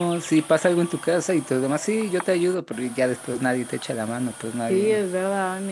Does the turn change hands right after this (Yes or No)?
Yes